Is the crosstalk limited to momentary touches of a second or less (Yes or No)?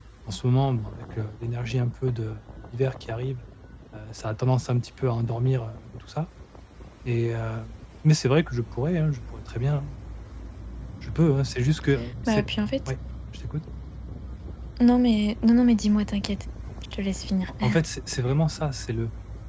Yes